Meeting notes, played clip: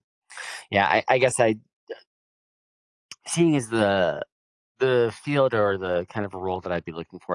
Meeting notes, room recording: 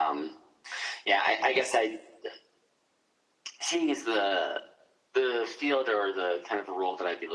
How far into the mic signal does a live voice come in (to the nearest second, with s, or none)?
none